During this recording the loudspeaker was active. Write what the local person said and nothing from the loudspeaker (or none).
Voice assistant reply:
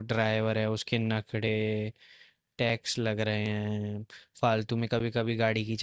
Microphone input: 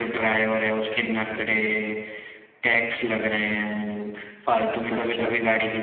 अच्छा है